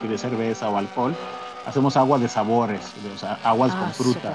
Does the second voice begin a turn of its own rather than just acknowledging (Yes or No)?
Yes